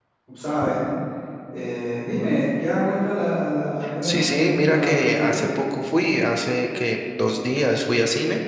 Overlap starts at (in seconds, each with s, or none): 3.8 s